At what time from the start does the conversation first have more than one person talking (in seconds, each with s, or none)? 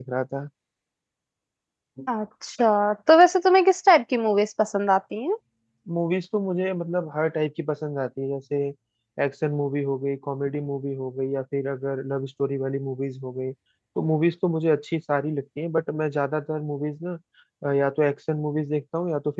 none